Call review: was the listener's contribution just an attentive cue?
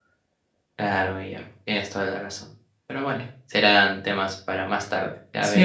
No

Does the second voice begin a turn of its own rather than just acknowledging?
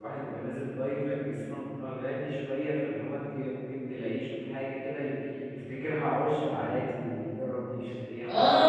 Yes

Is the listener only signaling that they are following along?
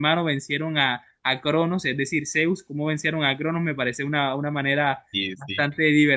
Yes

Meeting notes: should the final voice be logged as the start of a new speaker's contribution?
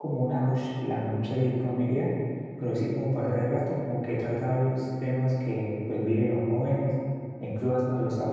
No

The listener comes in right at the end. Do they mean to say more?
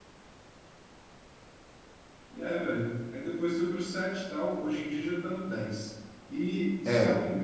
No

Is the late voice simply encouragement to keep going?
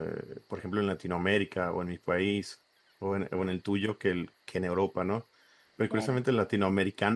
Yes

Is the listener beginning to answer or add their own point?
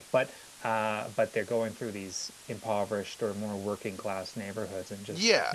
Yes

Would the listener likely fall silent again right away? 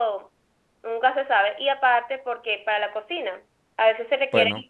Yes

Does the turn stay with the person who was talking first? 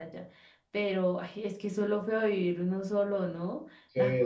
No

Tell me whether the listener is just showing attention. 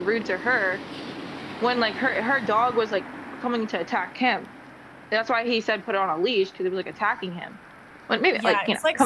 No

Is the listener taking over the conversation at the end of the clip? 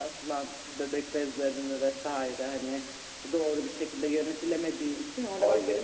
Yes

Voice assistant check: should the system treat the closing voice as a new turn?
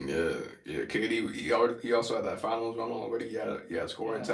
Yes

